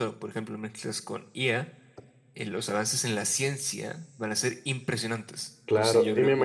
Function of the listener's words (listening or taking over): taking over